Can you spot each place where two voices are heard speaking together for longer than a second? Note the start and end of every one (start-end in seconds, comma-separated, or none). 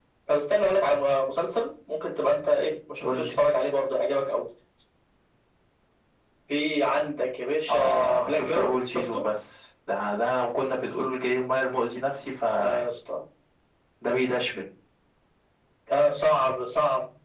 7.7-9.0